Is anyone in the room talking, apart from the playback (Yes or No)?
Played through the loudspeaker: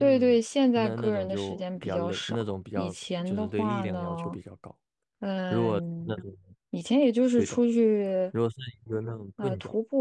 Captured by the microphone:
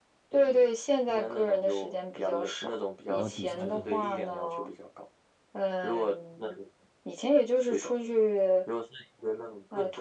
Yes